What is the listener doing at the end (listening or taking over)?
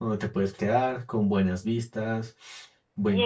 taking over